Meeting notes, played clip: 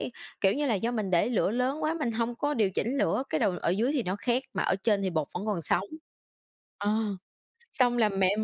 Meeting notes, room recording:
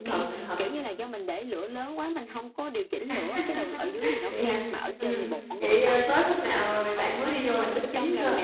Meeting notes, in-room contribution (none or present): present